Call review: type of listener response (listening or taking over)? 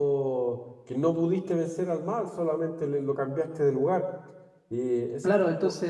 taking over